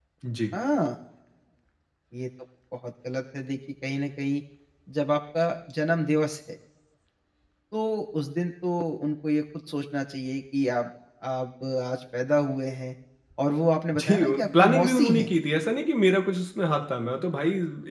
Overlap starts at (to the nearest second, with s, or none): 14 s